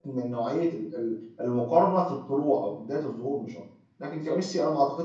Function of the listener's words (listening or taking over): listening